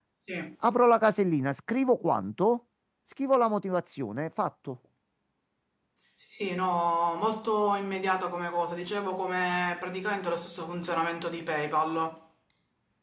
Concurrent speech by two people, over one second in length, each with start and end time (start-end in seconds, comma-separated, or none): none